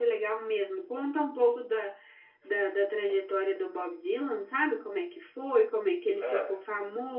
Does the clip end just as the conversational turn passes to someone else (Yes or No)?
No